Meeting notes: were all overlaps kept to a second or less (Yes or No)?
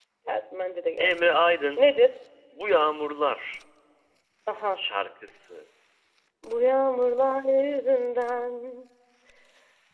Yes